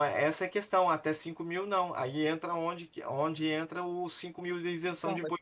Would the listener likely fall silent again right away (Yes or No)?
No